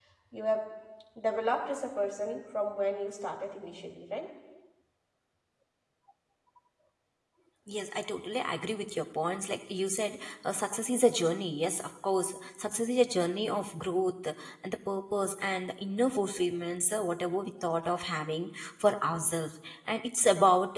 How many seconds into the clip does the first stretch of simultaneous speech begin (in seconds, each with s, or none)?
none